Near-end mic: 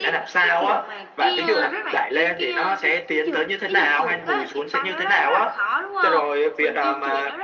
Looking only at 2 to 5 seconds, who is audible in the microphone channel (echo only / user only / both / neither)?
both